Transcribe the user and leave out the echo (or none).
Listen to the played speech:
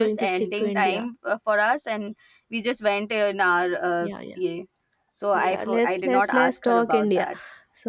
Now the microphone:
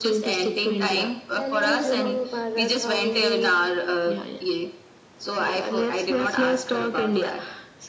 Hello, Juma Mubarak. How are you?